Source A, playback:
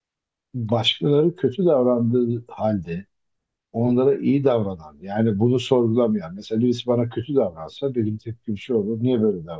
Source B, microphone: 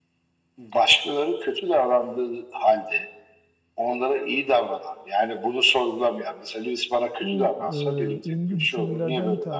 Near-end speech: present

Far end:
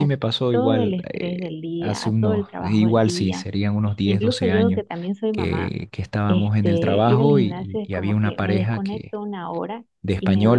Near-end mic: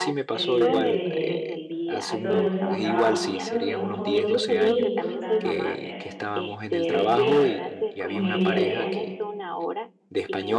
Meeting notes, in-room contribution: present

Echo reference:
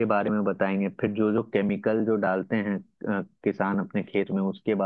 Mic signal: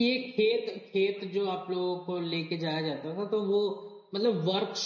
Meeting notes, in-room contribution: present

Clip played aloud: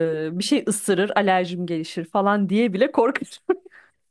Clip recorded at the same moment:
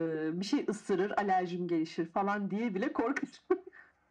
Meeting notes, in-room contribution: none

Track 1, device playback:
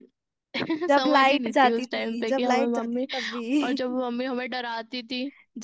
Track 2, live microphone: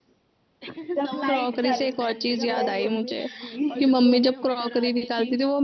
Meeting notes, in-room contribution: present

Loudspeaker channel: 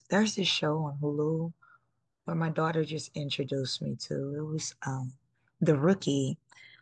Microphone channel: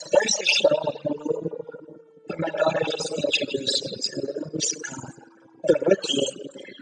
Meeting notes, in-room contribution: none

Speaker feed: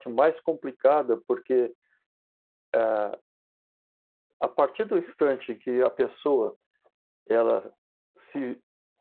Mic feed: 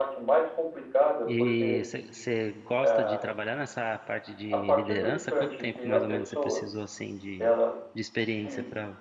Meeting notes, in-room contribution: present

